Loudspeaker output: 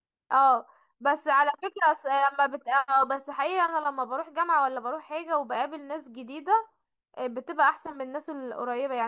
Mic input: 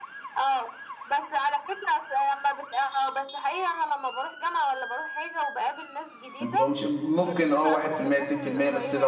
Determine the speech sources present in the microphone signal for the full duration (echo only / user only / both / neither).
both